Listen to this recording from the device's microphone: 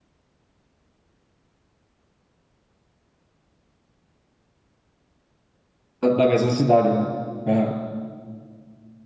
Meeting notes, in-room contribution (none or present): present